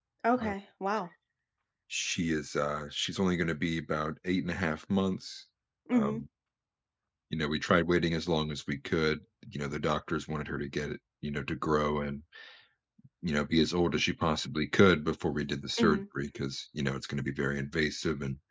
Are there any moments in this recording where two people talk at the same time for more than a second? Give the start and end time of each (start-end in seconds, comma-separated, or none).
none